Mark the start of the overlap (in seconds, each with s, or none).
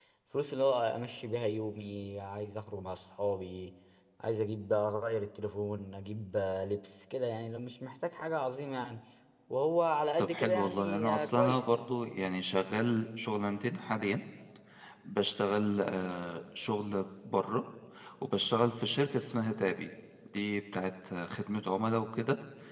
10.2 s